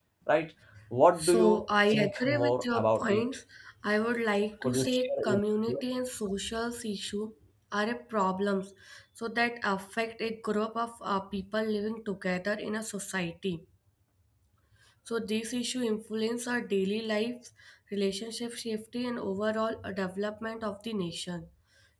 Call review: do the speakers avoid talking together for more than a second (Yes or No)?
No